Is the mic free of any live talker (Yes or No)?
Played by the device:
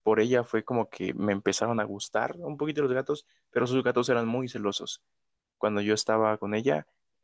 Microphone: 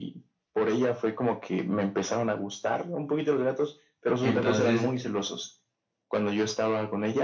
No